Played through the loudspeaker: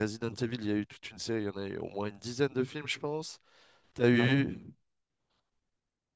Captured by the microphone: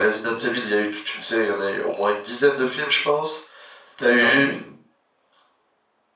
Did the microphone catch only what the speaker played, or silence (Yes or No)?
Yes